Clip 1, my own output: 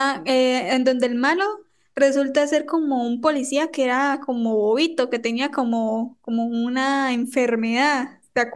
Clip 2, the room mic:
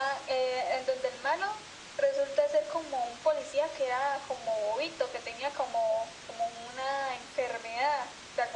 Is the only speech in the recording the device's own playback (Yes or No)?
Yes